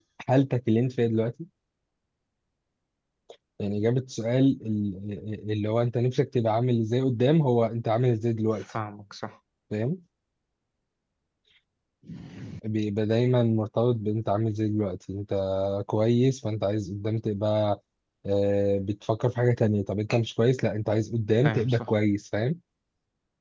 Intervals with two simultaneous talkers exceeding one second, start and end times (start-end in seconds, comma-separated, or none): none